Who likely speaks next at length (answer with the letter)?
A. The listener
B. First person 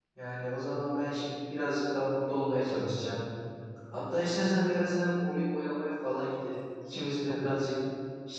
B